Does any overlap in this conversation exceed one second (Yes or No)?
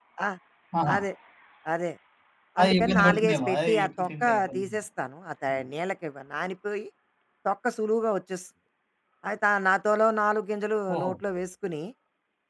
Yes